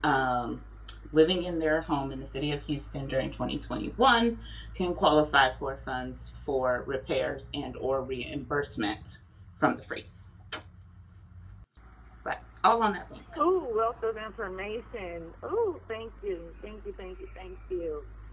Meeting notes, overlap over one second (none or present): none